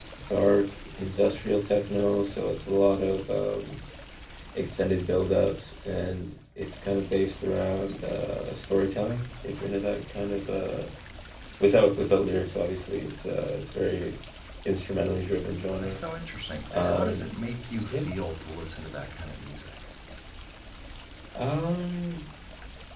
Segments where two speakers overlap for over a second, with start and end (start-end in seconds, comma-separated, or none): none